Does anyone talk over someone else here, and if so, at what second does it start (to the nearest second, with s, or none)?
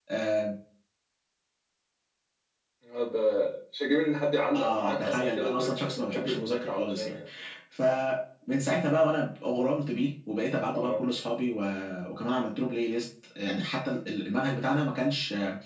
5 s